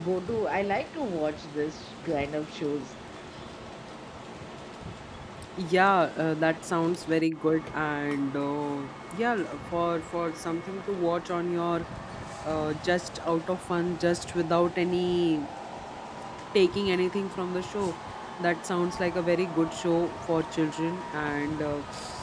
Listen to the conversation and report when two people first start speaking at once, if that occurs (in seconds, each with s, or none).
none